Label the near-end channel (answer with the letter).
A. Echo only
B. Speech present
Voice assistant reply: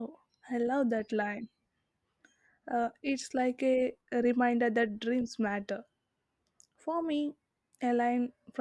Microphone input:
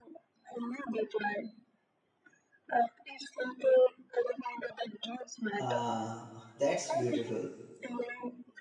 B